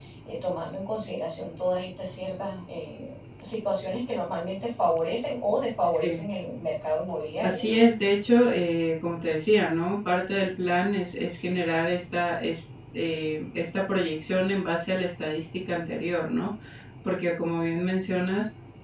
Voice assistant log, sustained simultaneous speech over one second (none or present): none